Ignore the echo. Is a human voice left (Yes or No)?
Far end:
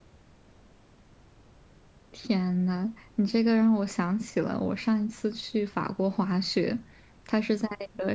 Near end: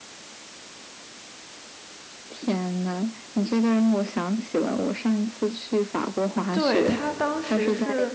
Yes